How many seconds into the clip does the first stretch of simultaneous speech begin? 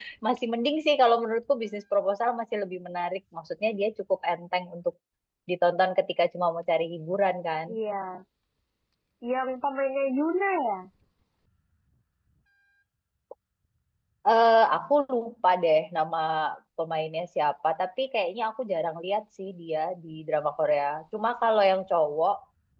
none

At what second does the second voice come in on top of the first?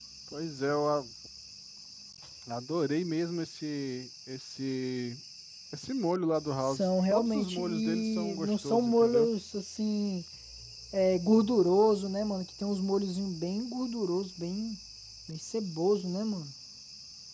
6.6 s

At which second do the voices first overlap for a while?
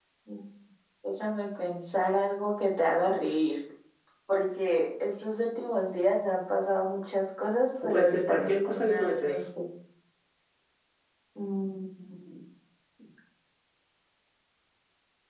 7.9 s

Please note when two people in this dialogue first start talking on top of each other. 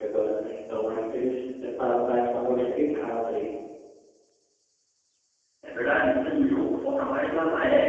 none

